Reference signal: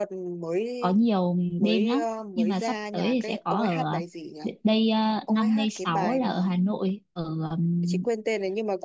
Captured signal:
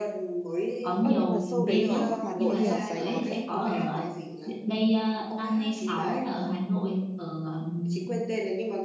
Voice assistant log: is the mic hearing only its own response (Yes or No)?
No